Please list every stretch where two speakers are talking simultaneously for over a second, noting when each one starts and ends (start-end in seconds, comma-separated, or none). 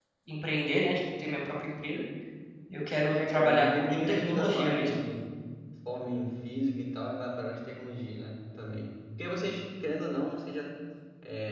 3.1-5.0